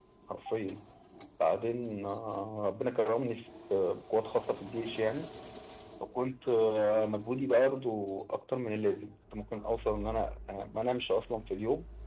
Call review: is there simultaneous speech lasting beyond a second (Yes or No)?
No